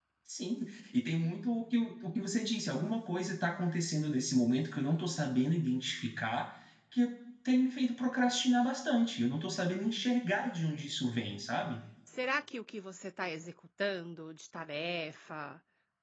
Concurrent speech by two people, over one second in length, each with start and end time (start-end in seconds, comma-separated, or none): none